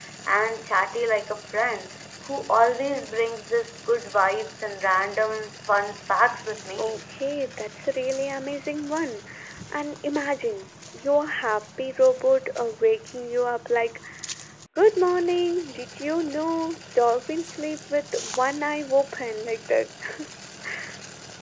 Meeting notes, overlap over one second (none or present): none